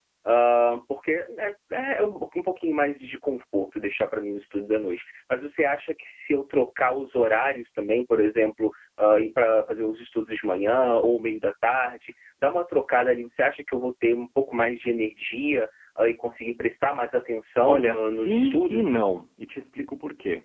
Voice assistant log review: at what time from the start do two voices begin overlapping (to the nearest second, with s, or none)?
18 s